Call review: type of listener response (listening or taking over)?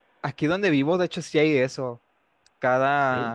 listening